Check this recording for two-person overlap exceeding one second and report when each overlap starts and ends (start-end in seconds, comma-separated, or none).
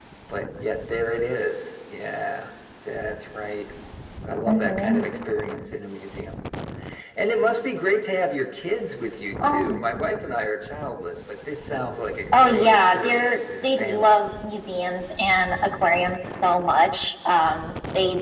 12.3-14.2